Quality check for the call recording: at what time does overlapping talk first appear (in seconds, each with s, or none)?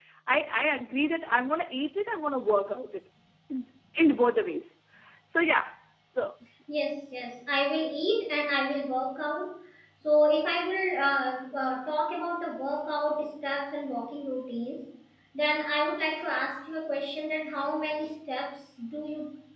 none